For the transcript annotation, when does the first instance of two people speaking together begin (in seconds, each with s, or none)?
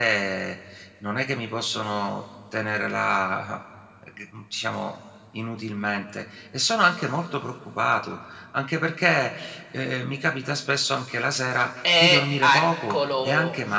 11.8 s